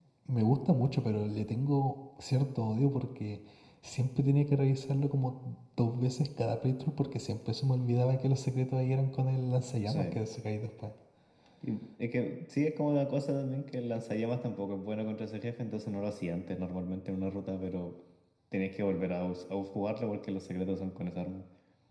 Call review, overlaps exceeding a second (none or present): none